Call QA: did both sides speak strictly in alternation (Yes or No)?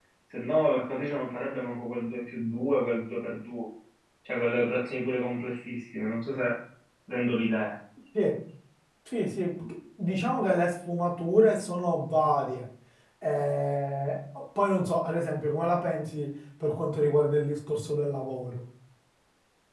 Yes